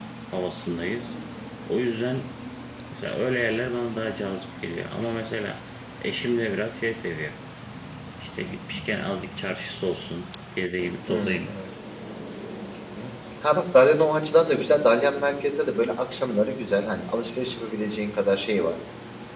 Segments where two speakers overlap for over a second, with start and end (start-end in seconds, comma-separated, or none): none